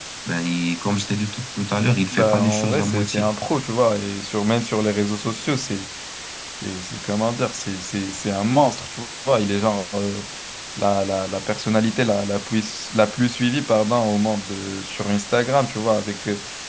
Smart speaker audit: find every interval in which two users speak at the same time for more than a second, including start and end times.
2.1-3.3

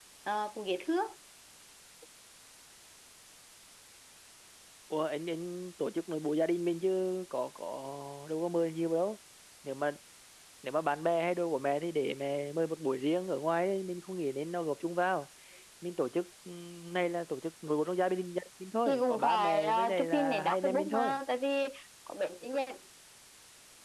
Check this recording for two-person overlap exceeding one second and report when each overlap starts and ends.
18.9-21.2

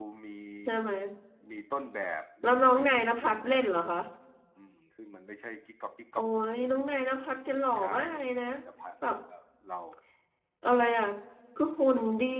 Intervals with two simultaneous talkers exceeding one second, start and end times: 2.4-3.9

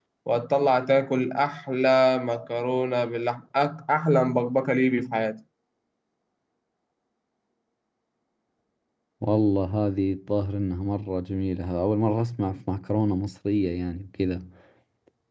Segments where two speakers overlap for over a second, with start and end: none

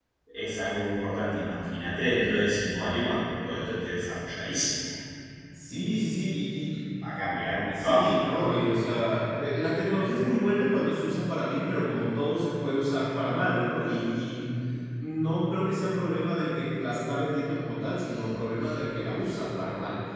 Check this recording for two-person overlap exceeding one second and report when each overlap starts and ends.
none

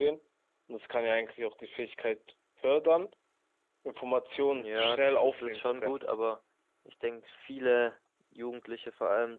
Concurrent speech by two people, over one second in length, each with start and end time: 4.4-6.0

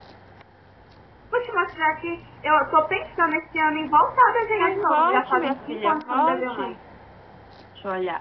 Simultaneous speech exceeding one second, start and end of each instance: 4.6-6.7

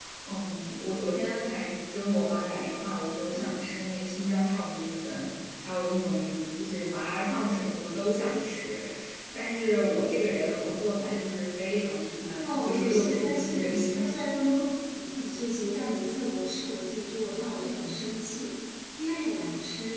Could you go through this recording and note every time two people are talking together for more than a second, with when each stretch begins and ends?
12.4-13.9

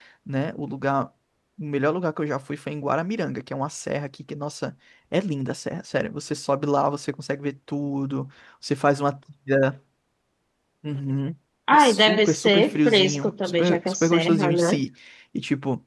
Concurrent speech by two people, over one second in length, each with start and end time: 11.7-14.8

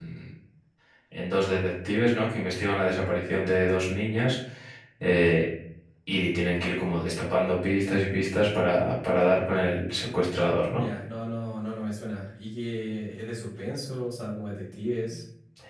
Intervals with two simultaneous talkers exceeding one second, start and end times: none

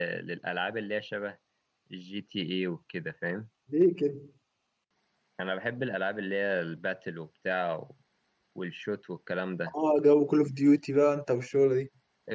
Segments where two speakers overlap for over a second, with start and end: none

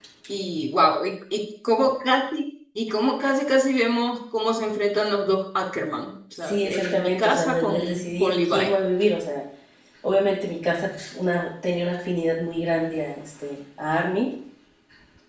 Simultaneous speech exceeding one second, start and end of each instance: 6.4-8.7

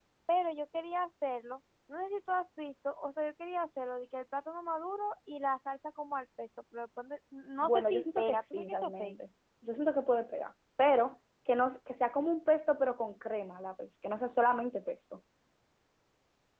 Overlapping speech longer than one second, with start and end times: 7.6-9.2

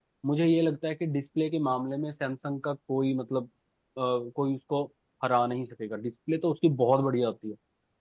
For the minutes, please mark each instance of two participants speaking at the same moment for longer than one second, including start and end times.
none

